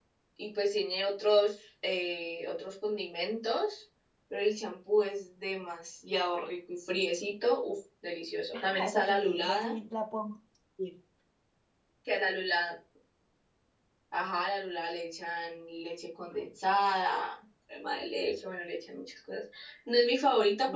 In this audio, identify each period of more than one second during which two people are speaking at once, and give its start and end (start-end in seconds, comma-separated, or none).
8.5-9.8